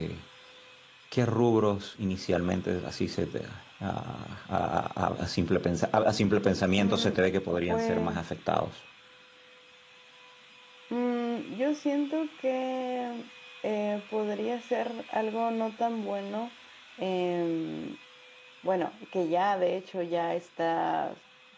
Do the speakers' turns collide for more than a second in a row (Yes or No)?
No